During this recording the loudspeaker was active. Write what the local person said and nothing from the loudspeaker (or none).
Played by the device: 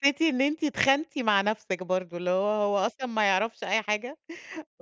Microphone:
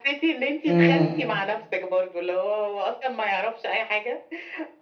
إمم.